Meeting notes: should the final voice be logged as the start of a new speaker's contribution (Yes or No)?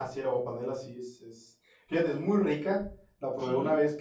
No